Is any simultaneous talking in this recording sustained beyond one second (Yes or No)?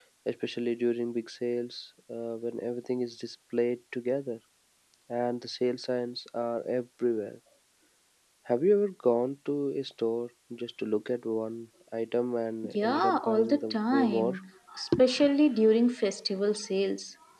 Yes